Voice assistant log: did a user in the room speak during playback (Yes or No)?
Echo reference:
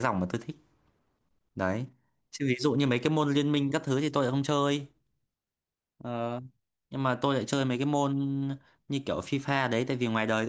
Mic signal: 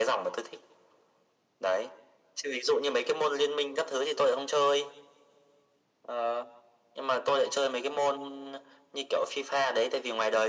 No